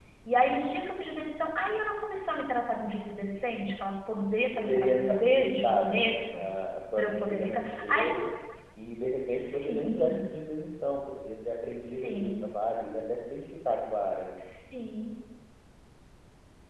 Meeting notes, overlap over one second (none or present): present